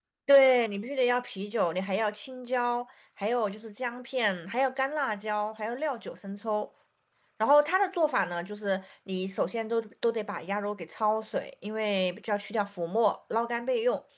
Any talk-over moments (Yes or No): No